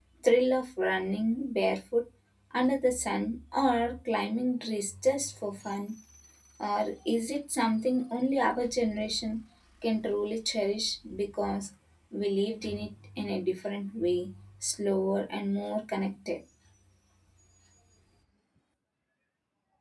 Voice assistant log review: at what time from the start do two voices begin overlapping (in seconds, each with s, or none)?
none